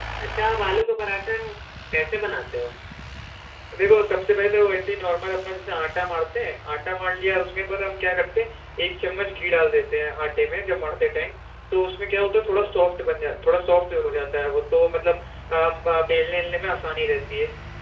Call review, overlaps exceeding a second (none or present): none